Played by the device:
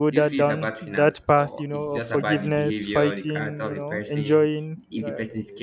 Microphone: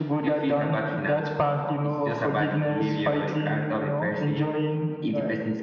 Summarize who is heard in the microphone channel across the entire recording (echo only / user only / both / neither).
echo only